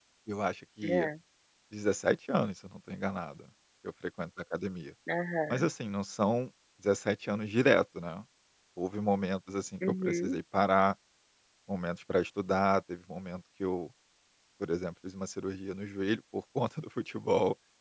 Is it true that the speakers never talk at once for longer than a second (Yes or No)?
Yes